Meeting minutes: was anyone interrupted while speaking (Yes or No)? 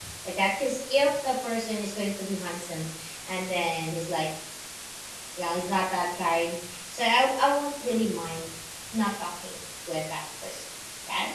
No